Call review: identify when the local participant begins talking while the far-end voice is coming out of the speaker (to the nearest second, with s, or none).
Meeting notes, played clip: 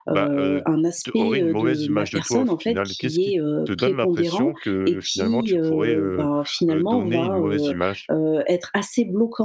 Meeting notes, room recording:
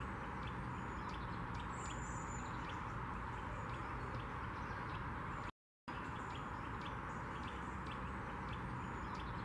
none